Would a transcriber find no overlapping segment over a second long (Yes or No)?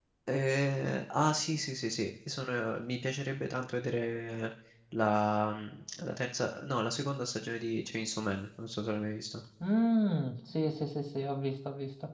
Yes